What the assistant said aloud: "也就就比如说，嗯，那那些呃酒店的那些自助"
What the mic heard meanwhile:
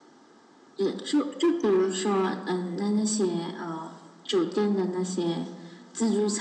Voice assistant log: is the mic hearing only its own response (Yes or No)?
Yes